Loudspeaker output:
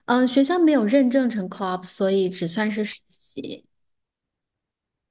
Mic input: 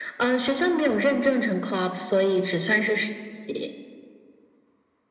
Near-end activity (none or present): none